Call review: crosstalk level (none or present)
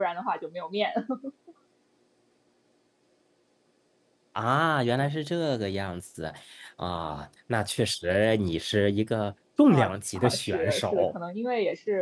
present